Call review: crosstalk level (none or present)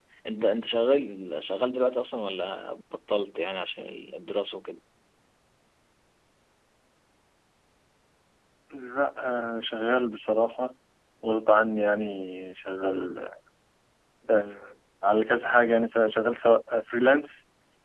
none